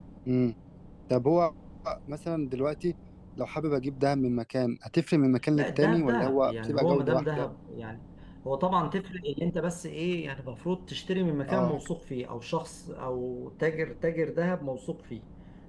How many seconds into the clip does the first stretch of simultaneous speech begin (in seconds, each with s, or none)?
5.5 s